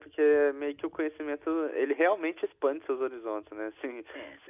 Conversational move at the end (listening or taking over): listening